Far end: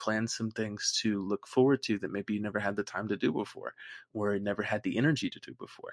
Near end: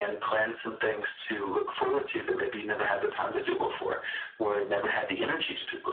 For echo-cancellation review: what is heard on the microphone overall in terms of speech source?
echo only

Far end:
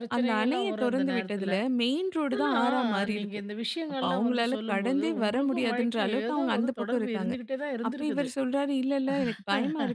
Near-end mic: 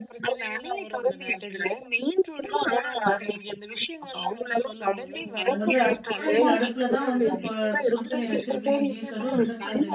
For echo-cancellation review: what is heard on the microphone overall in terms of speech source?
both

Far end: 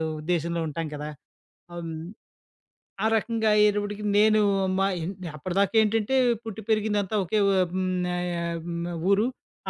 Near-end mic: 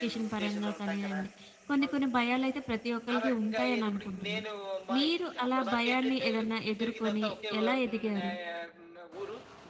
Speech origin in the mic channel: both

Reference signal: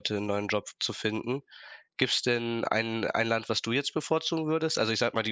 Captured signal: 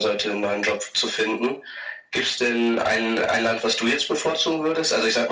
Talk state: echo only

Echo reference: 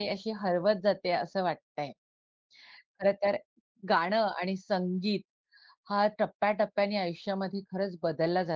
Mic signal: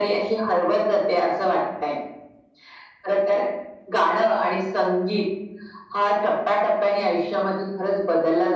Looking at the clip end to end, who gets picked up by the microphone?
echo only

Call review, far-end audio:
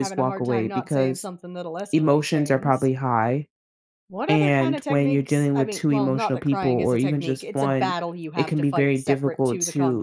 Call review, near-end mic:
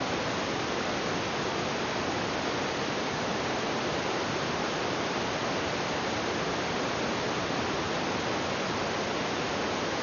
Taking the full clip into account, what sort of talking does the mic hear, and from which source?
neither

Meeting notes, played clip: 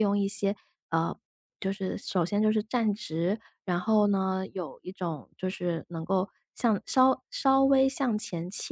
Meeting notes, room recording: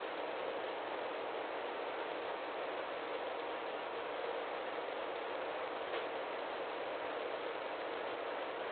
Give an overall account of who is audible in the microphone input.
neither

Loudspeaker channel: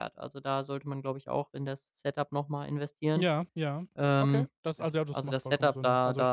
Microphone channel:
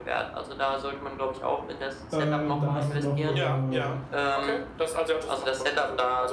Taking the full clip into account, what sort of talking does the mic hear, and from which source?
both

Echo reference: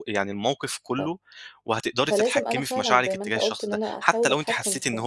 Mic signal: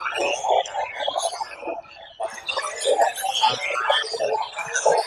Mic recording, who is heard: echo only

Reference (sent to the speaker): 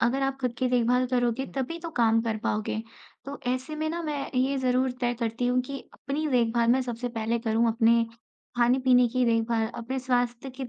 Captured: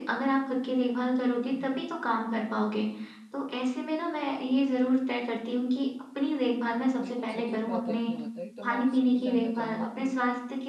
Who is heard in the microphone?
both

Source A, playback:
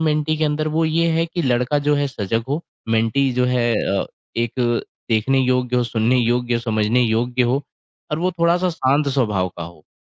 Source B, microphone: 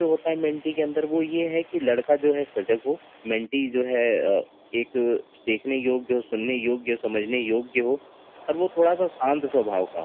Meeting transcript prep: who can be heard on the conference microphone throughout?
echo only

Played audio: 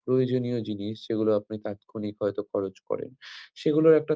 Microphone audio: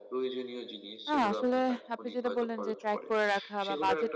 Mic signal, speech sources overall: both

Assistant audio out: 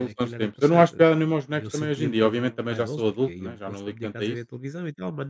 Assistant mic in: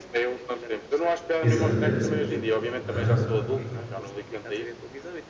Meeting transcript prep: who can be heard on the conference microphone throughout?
both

